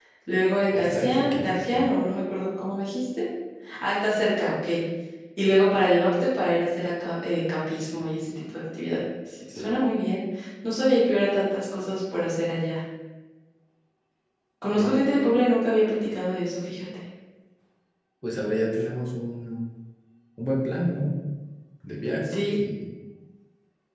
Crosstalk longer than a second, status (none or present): present